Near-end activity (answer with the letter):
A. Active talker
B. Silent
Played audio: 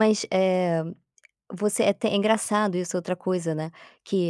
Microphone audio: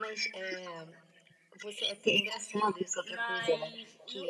A